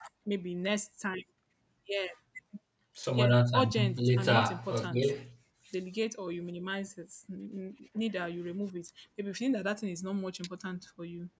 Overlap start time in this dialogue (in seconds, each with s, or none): 3.2 s